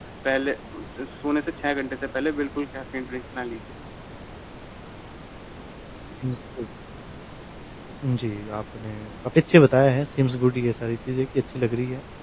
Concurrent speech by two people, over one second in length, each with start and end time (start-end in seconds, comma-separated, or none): none